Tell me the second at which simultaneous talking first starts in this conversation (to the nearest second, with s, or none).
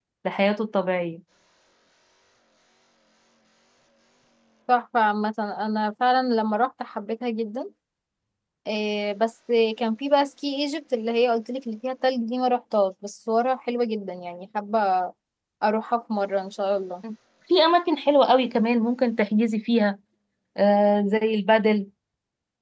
none